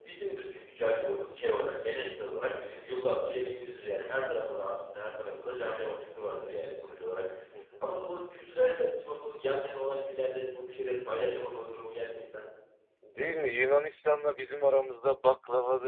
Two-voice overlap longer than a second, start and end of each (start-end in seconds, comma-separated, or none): none